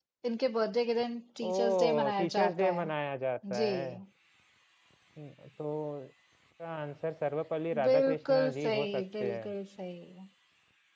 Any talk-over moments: Yes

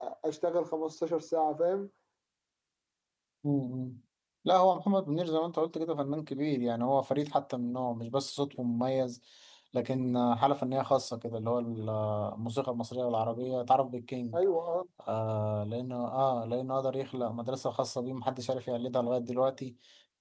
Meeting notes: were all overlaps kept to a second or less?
Yes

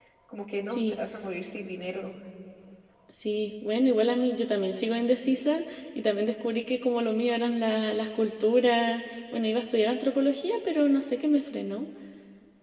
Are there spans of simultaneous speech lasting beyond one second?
No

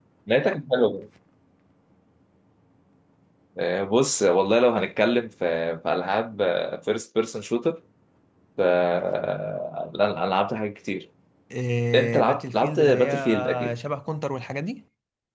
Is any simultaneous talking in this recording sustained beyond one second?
Yes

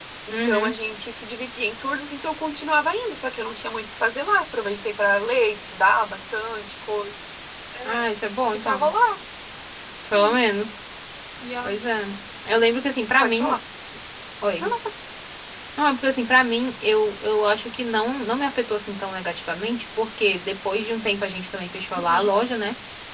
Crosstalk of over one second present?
No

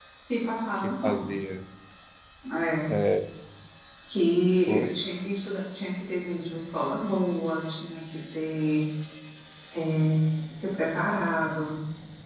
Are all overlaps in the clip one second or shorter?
Yes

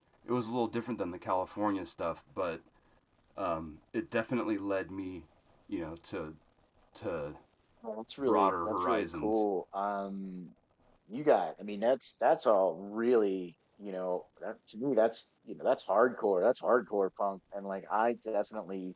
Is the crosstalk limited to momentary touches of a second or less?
No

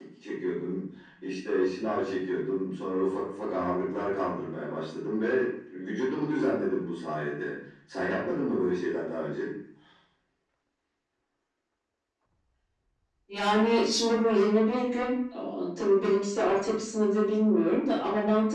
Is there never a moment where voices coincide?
Yes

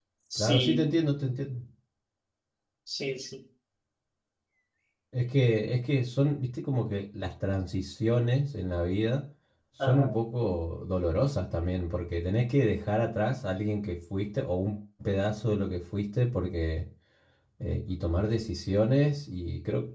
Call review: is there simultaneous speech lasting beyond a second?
No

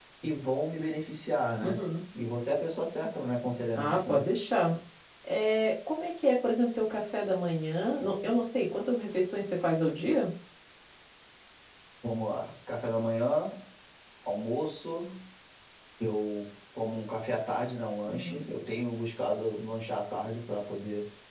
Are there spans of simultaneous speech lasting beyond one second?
No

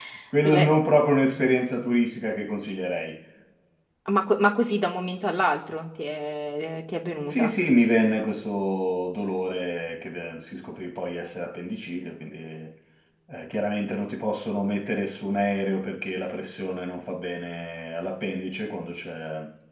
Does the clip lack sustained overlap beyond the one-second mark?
Yes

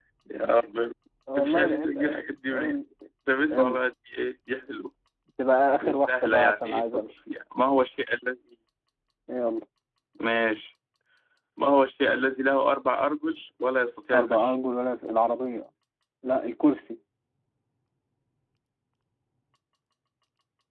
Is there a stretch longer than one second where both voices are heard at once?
Yes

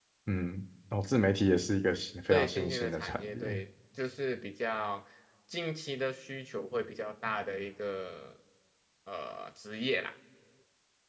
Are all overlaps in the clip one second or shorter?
No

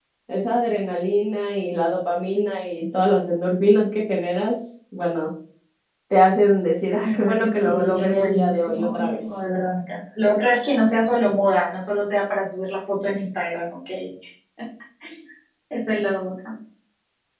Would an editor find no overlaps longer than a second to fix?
No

